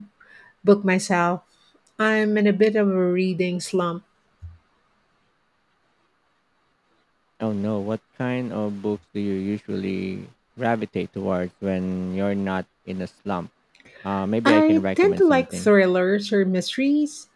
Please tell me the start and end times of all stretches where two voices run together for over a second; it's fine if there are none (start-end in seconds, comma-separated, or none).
14.4-15.7